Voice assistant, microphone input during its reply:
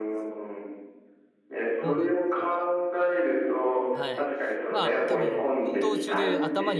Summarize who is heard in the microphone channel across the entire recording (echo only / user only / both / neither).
both